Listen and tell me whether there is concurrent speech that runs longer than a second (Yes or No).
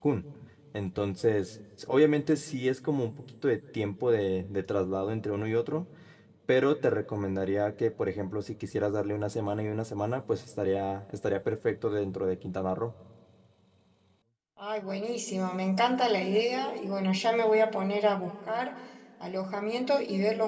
No